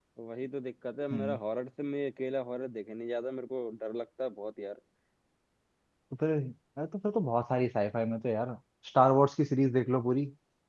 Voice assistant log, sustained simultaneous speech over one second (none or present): none